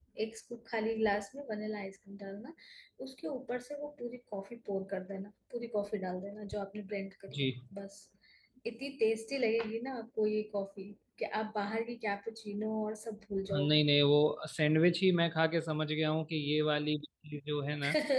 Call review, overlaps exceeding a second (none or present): none